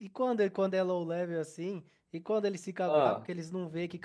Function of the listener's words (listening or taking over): listening